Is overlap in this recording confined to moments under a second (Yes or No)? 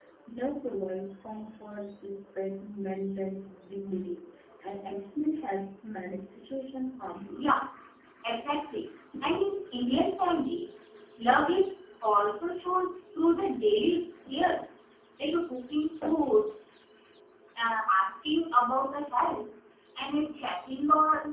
Yes